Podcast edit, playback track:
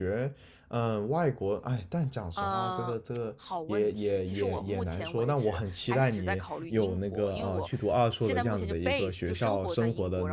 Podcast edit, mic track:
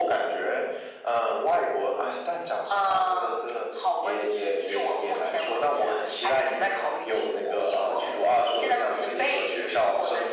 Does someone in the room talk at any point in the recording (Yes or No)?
No